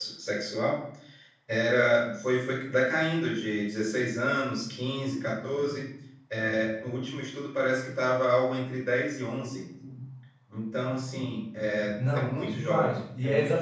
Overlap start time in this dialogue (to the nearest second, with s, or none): 12 s